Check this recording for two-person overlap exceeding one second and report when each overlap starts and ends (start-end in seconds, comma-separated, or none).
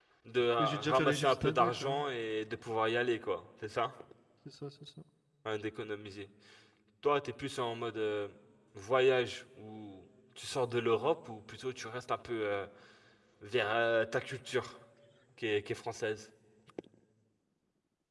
0.6-2.0